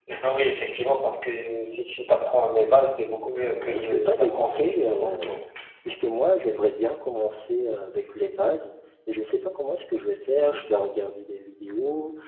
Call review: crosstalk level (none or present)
present